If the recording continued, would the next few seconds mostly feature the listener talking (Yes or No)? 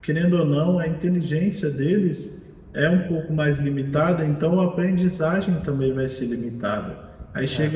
No